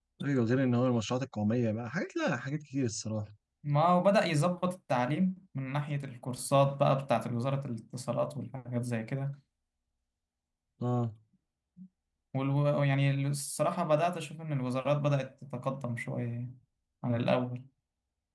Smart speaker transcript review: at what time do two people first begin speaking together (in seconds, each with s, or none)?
none